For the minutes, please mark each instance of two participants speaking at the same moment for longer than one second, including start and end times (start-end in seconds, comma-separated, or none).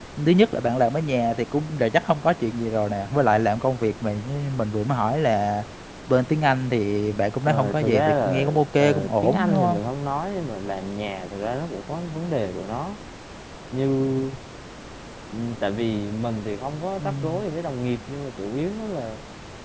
7.5-9.8